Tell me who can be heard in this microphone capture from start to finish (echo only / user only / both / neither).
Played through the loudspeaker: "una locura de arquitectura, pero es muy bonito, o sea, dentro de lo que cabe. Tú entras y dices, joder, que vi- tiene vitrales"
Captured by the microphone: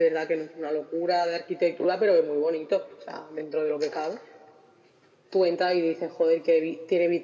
echo only